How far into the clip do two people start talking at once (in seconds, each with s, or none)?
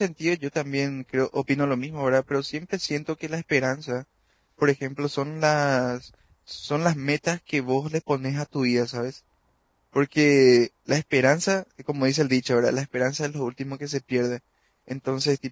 none